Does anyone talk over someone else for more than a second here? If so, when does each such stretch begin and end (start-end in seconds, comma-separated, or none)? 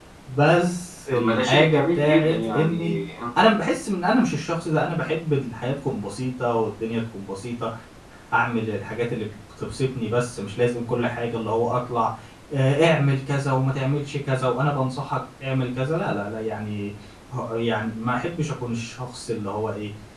1.1-2.9